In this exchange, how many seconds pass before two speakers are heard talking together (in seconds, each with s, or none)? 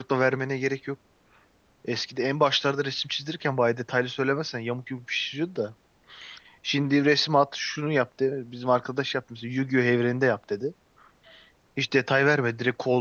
none